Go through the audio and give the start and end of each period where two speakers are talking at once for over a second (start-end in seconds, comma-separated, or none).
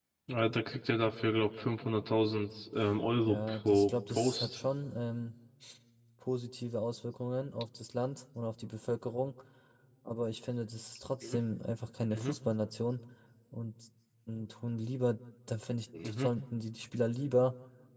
3.3-4.6